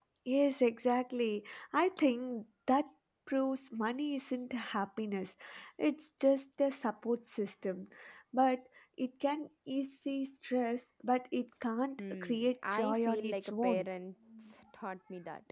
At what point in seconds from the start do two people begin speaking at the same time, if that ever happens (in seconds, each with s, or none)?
12.0 s